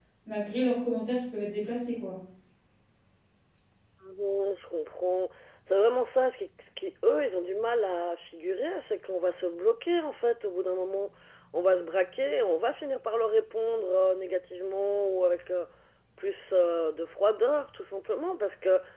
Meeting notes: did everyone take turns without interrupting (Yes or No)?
Yes